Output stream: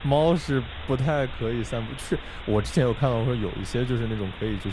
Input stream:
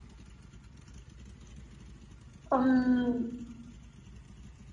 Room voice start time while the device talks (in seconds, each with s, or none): 2.5 s